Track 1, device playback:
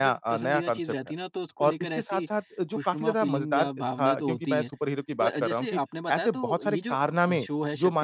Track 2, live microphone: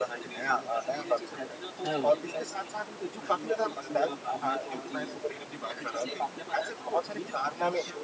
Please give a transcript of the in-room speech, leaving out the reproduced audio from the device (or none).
हाँ, वो।